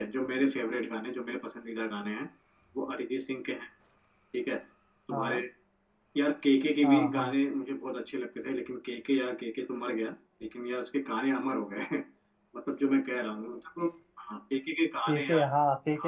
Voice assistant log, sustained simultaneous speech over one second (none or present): none